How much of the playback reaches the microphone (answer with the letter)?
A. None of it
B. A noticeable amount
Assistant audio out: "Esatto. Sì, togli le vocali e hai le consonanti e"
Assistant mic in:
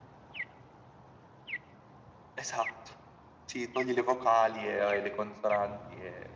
B